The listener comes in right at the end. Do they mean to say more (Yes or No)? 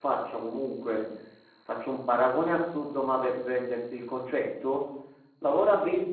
No